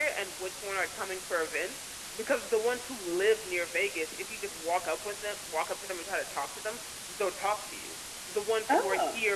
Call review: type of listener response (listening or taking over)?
listening